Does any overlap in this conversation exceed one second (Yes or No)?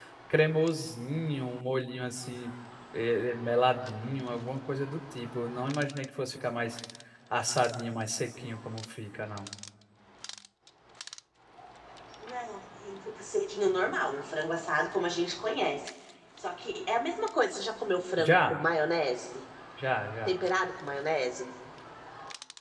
No